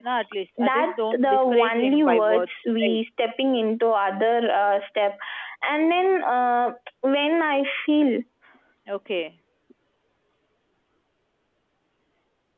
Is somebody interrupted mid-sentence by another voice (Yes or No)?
Yes